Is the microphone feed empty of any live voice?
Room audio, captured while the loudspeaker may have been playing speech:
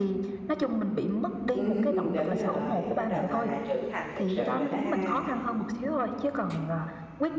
No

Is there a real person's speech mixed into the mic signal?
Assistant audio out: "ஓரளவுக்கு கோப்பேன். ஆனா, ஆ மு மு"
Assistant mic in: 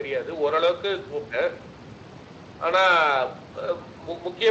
No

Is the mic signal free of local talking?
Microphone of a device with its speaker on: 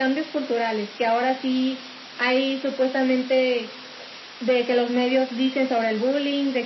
Yes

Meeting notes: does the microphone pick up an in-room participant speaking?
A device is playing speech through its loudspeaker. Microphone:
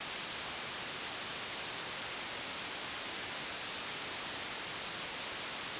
No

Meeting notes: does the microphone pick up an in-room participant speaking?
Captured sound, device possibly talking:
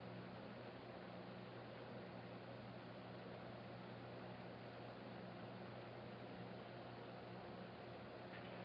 No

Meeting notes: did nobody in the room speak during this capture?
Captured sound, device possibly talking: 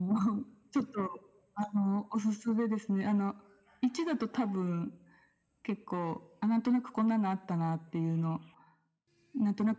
Yes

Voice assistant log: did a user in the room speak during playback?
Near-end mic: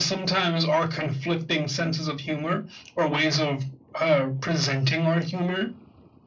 No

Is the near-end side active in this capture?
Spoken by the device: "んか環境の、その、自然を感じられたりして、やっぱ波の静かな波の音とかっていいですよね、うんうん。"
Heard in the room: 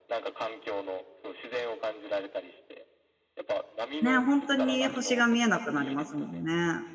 Yes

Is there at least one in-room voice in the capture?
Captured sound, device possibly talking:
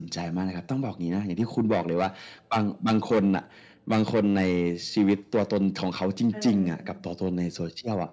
Yes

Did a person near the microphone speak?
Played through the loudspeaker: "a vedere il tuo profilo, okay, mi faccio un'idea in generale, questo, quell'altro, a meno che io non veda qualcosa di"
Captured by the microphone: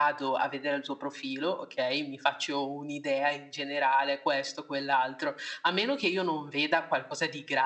No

